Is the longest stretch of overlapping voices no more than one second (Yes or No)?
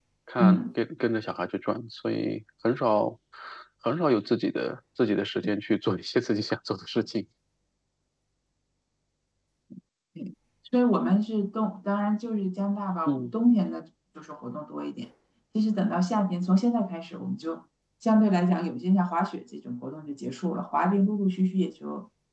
Yes